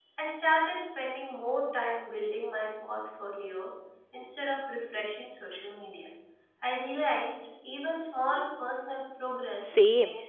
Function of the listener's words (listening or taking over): taking over